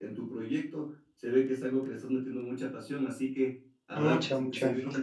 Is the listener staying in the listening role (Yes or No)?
Yes